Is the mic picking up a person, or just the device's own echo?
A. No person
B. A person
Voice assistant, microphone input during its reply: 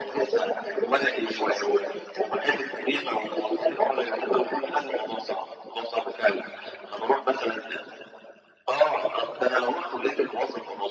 A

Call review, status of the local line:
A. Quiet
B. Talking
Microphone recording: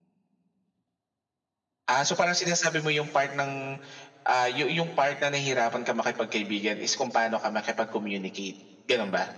A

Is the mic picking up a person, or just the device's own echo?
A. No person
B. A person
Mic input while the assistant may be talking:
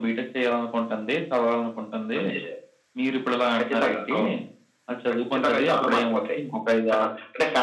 A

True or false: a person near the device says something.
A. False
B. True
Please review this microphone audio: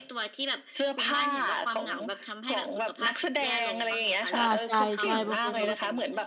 B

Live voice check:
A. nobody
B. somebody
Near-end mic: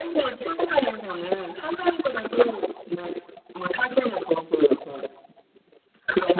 A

